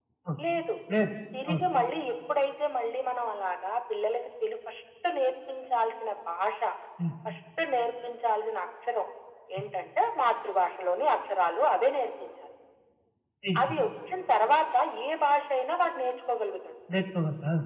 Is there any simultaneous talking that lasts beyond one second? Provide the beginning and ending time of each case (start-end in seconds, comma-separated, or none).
none